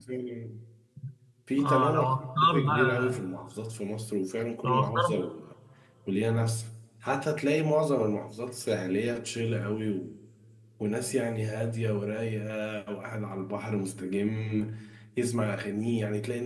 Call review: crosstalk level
present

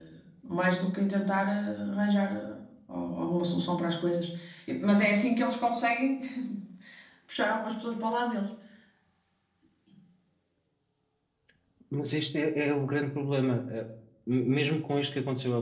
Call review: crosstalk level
none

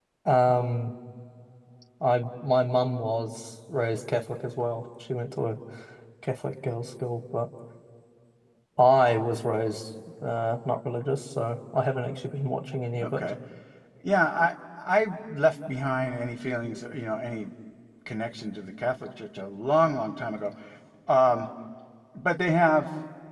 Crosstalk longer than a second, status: none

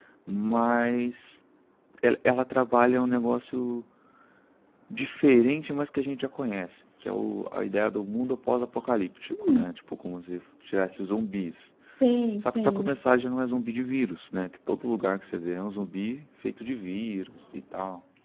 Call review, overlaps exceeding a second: none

